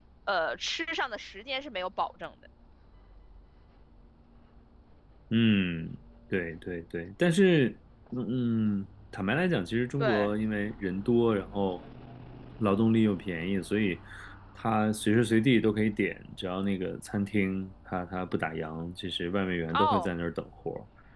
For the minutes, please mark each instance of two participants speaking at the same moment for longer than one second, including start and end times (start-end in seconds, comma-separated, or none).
none